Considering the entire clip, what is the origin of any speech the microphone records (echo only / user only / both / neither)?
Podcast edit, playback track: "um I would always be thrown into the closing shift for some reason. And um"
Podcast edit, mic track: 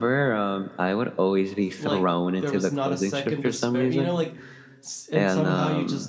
both